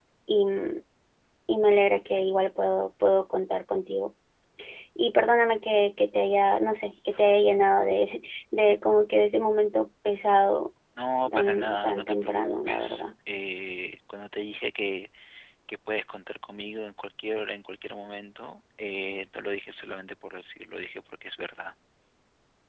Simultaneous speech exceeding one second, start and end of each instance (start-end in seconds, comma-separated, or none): 11.3-13.0